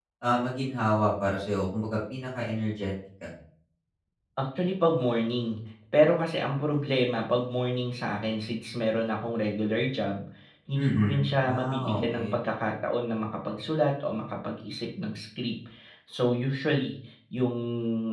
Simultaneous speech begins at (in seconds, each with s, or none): 10.8 s